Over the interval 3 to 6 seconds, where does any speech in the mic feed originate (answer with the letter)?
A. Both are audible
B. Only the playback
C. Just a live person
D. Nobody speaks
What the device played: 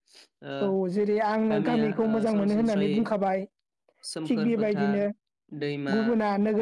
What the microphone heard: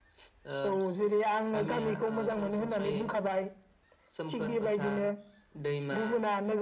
B